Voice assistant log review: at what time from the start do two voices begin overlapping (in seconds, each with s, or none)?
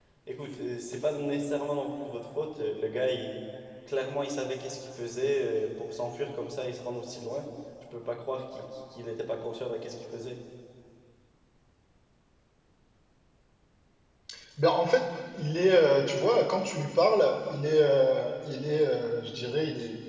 none